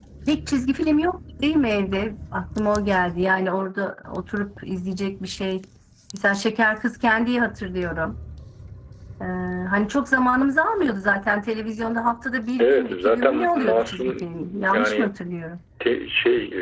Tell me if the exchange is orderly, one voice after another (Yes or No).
No